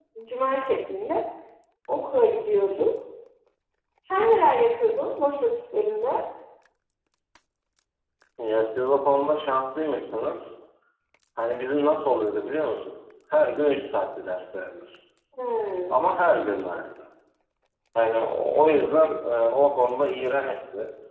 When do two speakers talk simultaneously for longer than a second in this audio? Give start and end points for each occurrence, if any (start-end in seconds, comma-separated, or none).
none